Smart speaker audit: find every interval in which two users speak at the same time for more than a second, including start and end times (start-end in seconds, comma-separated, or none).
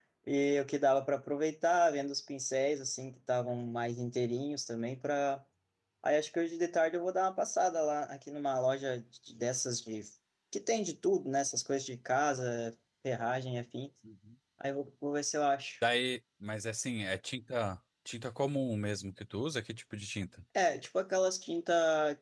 none